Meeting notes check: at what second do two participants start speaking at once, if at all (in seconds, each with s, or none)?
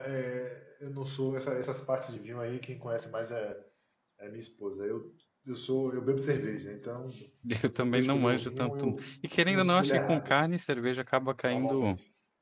7.6 s